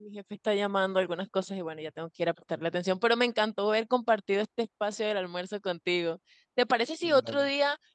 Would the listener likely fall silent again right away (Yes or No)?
Yes